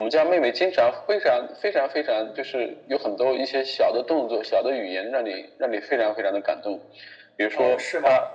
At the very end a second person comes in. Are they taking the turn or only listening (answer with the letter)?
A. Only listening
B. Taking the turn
B